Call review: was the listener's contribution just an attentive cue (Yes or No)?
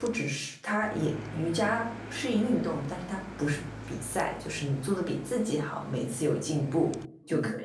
No